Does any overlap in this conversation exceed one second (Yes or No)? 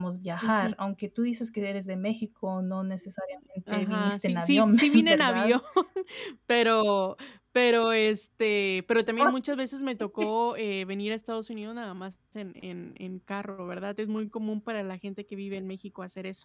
Yes